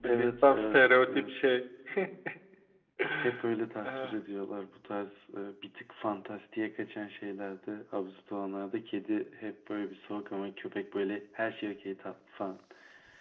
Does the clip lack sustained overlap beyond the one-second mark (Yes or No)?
No